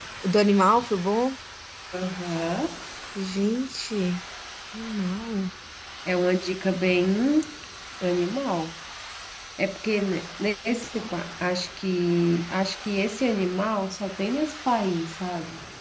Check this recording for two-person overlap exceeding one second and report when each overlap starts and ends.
none

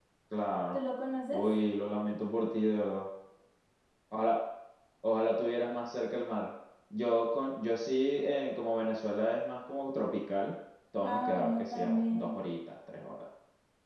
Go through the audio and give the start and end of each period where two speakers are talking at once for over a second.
11.0-12.3

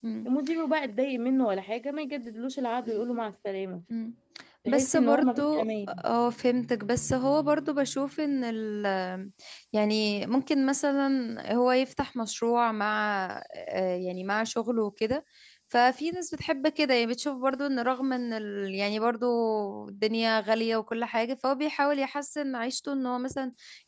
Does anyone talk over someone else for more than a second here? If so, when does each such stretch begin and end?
4.7-5.9

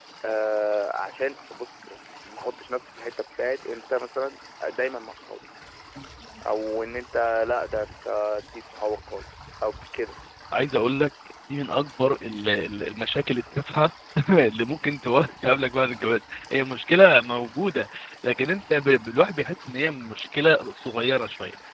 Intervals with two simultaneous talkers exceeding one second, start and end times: none

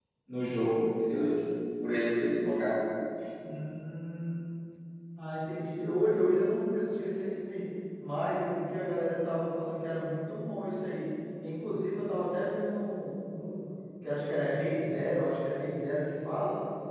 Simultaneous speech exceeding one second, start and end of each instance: none

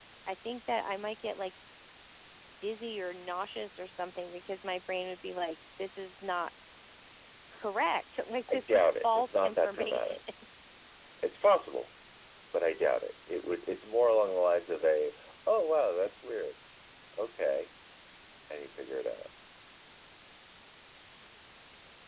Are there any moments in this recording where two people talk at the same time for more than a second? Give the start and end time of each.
8.5-10.2

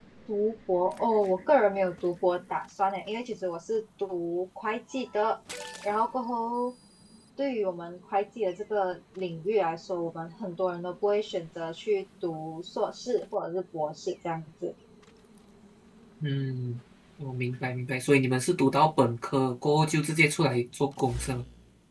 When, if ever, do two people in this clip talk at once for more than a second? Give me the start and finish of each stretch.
none

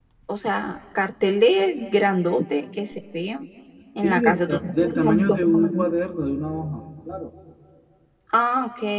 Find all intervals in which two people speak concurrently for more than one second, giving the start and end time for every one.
4.0-5.8

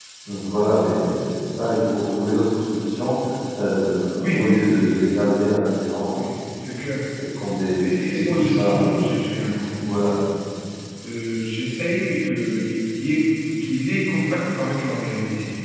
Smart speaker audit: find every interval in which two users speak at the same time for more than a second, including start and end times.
7.8-9.0

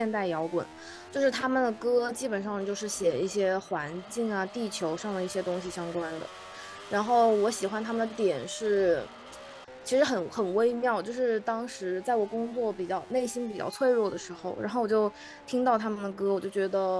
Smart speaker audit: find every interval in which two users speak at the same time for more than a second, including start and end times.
none

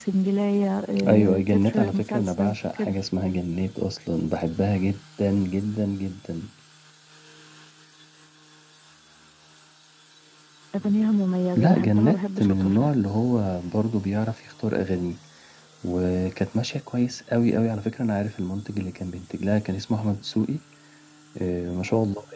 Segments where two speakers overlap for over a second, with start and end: 1.1-2.9, 11.6-12.9

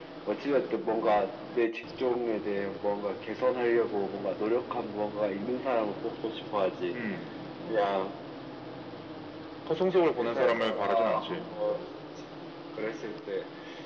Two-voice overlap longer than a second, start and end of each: 9.9-11.3

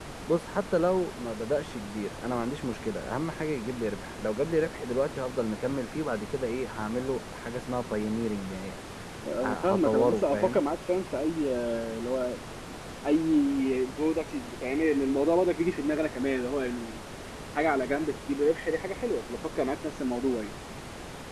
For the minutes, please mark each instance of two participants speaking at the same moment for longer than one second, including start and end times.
9.4-10.6

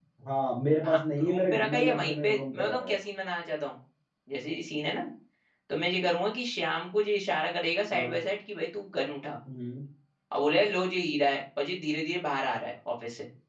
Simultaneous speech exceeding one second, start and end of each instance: 0.8-3.0

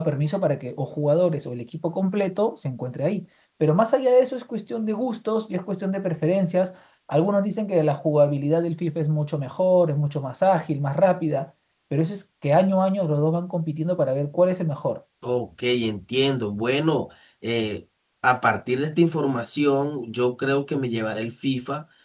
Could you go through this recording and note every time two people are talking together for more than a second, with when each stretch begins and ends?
none

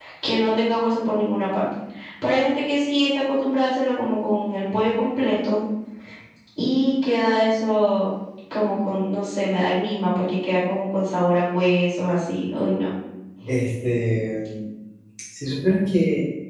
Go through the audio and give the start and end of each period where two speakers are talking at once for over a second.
none

